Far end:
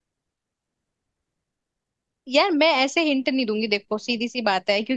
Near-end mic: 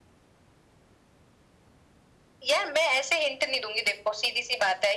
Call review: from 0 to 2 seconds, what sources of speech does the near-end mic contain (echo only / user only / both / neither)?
neither